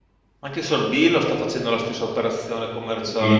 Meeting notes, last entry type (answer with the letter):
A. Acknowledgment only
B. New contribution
B